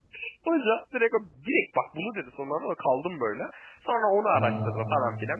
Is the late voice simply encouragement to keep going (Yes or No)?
Yes